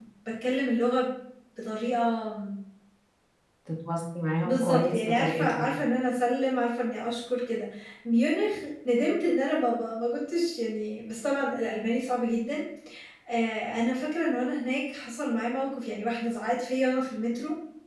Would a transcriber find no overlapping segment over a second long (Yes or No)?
No